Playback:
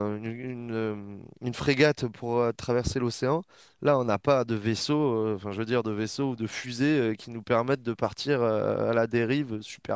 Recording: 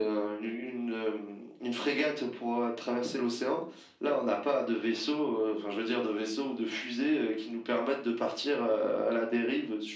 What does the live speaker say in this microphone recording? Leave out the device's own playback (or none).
none